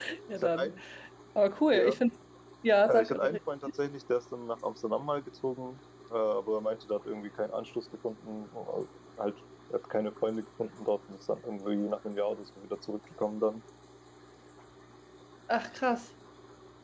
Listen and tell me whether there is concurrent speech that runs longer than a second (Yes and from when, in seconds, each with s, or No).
No